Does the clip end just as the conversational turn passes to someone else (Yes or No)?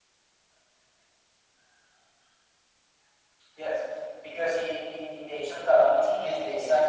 Yes